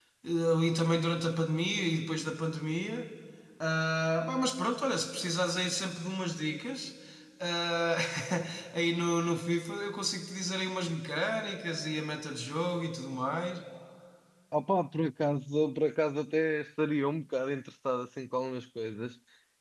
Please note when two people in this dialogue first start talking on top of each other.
none

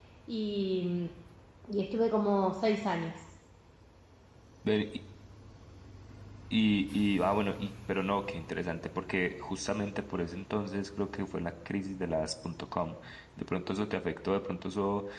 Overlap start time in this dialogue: none

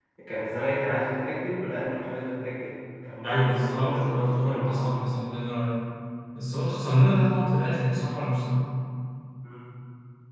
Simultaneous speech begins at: 3.2 s

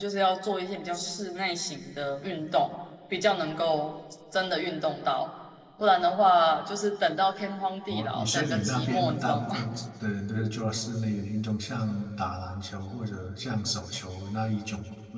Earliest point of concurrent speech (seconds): 7.9 s

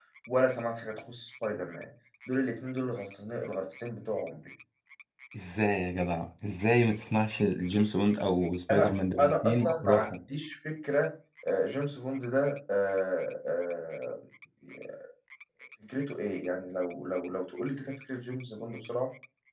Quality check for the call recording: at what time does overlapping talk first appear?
8.7 s

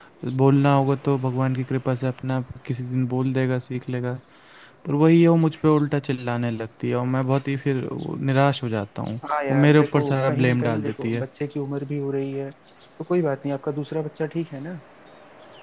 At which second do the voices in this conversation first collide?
9.5 s

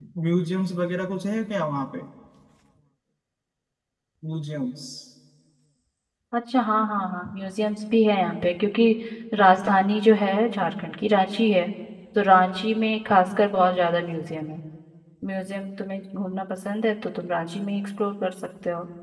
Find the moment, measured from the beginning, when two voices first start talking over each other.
none

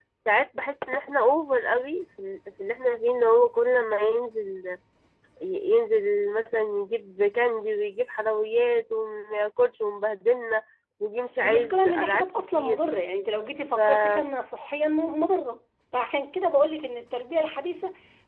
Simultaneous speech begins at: 11.4 s

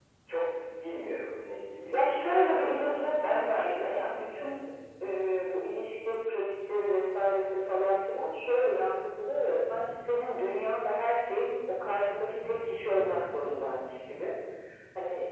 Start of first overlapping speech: 1.9 s

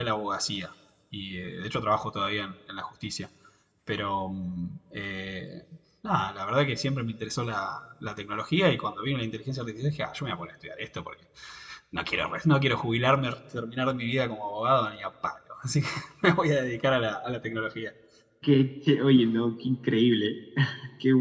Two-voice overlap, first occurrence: none

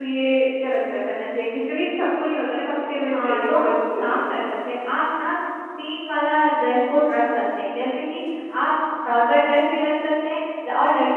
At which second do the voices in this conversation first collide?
3.1 s

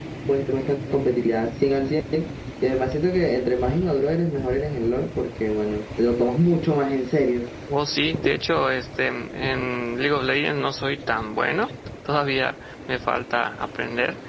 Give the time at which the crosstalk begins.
none

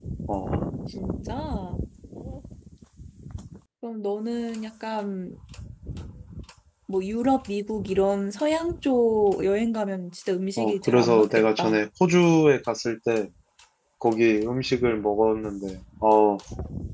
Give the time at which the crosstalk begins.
10.6 s

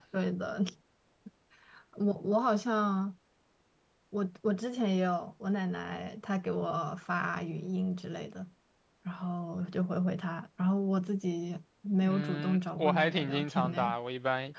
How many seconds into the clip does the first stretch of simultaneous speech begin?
12.0 s

